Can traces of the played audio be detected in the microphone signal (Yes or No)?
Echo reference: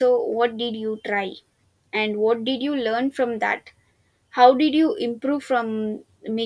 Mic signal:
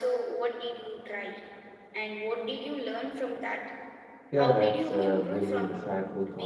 Yes